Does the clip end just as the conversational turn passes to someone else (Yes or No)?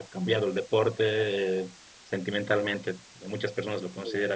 No